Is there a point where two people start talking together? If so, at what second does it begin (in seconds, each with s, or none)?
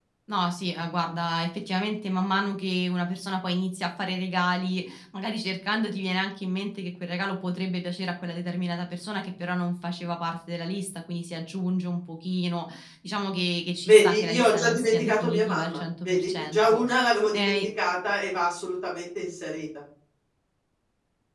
13.9 s